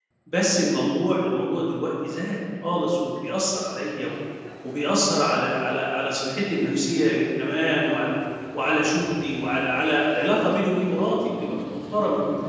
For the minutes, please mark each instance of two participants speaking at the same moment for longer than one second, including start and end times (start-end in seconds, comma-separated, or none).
none